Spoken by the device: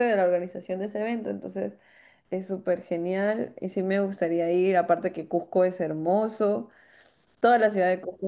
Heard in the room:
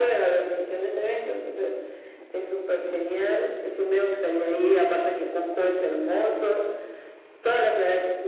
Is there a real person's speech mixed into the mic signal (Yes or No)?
No